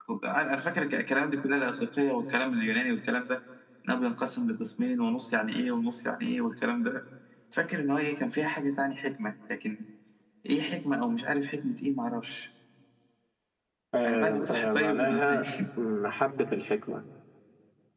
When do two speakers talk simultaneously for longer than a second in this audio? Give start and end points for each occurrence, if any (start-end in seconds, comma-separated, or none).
14.1-15.5